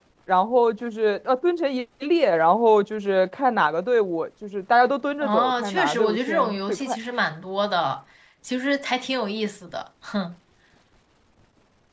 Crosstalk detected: Yes, from 5.2 s

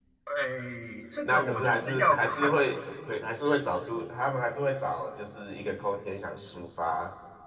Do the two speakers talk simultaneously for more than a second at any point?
Yes, from 1.2 s

